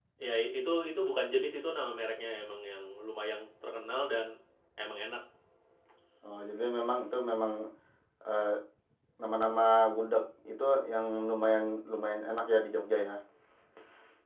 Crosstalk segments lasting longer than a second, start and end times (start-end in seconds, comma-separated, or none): none